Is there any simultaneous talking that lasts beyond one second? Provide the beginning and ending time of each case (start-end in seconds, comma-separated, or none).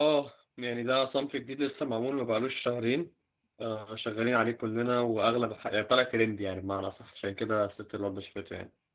none